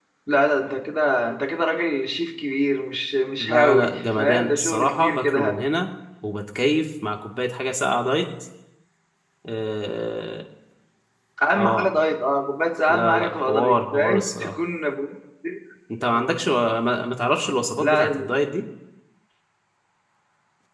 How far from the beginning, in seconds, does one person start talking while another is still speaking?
3.4 s

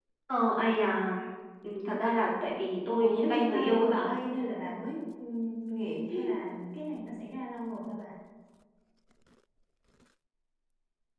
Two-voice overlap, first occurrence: 2.8 s

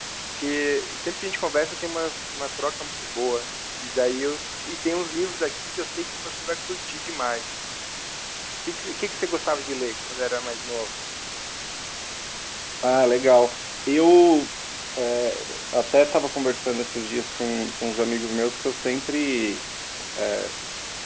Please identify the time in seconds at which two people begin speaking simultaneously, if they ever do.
none

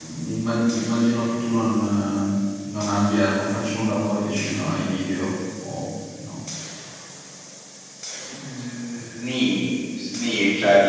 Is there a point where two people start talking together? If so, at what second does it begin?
none

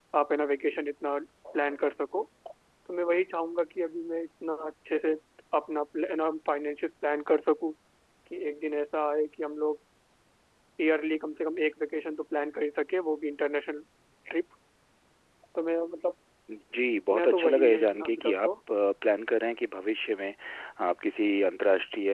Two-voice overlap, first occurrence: 17.1 s

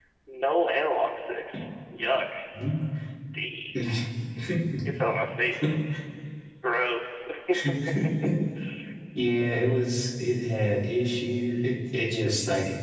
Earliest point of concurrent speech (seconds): none

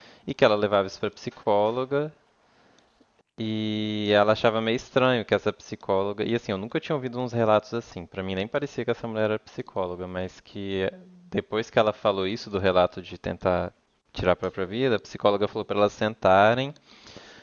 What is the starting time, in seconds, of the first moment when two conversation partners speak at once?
none

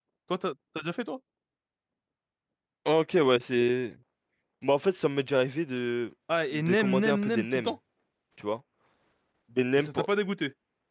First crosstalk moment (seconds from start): 6.5 s

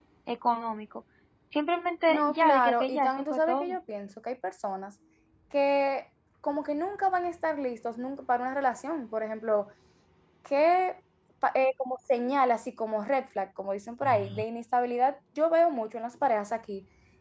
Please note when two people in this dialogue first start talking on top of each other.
2.1 s

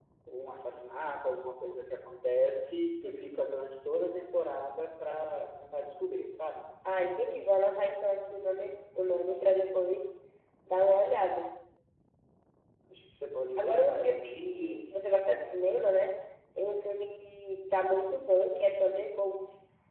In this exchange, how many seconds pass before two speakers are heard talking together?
13.6 s

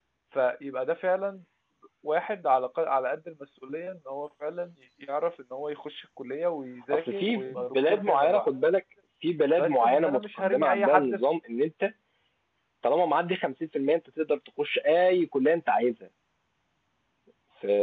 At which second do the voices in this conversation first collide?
6.9 s

